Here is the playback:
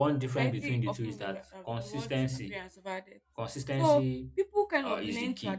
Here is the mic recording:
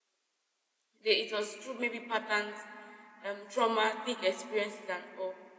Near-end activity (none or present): present